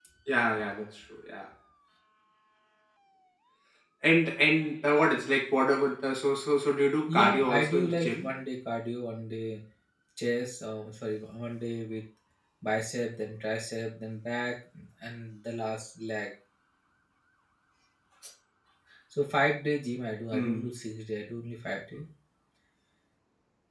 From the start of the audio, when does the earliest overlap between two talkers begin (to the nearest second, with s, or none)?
7 s